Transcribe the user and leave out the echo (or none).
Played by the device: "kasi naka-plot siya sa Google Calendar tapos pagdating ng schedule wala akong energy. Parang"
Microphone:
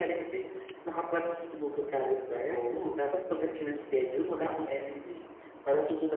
oo.